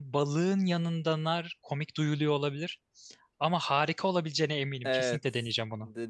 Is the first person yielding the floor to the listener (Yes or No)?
Yes